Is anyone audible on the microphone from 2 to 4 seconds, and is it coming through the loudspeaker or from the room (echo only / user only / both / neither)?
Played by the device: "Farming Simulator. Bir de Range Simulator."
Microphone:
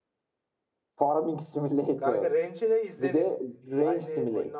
both